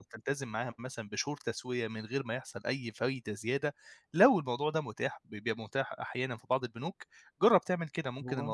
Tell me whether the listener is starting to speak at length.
No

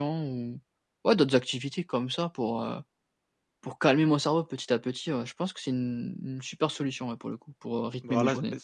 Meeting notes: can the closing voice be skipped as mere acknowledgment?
No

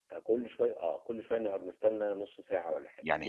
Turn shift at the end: Yes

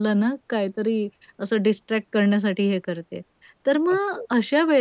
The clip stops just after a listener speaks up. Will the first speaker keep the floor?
Yes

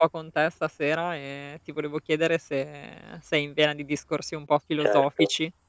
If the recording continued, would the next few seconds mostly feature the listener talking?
Yes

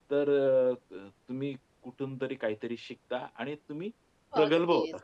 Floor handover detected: Yes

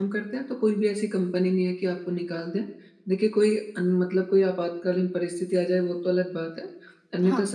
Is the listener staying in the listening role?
Yes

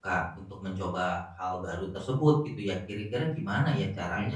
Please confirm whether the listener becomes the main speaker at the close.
No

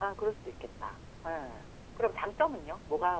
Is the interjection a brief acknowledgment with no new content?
Yes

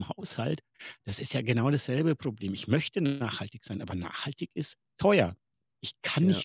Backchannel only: Yes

